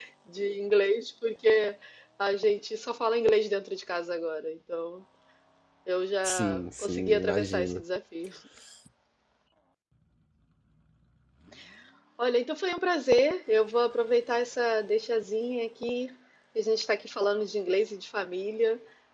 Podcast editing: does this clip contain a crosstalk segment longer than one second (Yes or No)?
Yes